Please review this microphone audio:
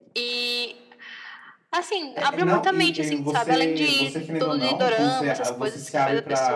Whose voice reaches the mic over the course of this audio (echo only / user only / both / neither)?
both